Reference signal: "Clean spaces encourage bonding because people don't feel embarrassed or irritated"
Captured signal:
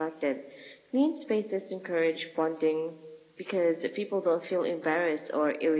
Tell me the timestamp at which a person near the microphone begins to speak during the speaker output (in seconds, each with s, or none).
none